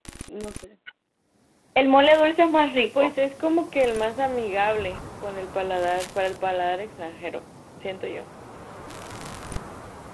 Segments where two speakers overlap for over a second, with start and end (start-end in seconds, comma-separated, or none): none